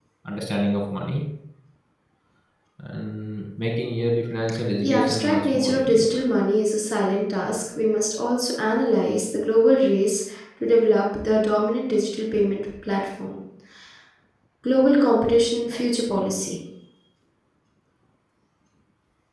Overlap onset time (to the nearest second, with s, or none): 5 s